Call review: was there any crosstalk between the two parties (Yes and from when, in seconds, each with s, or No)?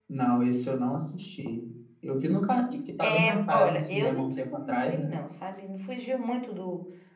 Yes, from 3.0 s